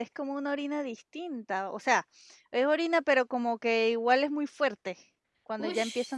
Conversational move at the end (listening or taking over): taking over